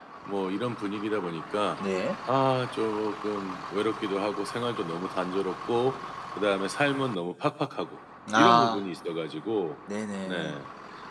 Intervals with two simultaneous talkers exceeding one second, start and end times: none

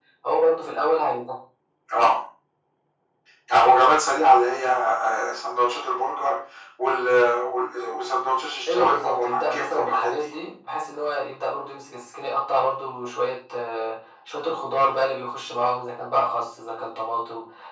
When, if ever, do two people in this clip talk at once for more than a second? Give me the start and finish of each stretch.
8.7-10.3

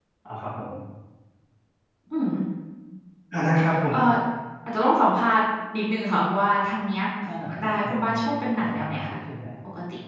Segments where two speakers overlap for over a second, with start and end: 7.6-9.2

